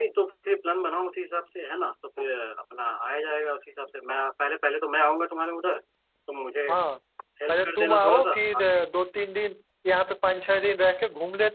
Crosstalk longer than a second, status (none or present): present